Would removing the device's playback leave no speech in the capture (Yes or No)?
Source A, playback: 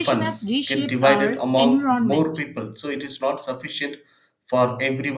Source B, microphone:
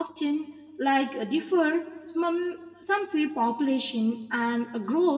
No